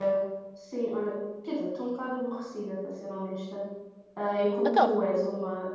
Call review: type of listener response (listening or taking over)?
listening